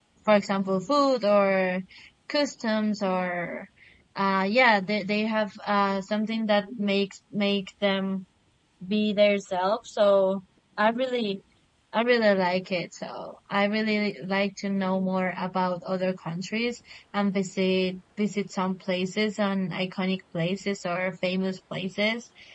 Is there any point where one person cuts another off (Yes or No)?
No